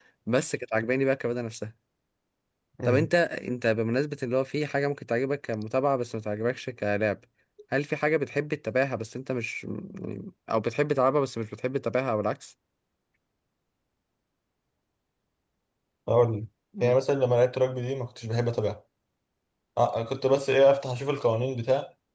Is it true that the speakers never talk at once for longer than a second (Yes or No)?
Yes